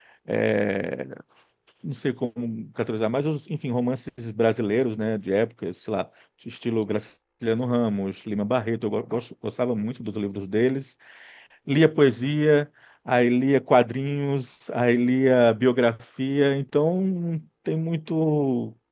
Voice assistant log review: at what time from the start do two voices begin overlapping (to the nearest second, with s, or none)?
none